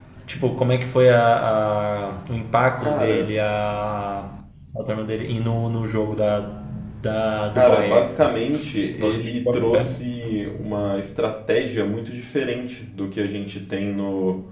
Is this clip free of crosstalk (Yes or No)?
No